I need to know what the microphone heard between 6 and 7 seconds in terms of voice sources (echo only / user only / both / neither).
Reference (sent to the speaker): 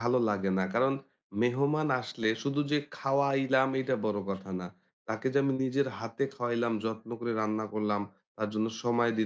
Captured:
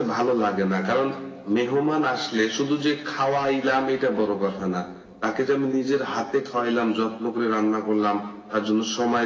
echo only